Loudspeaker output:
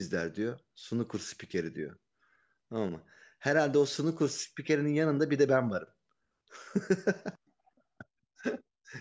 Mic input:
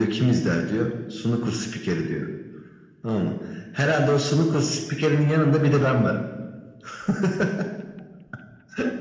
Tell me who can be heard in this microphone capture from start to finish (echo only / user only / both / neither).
echo only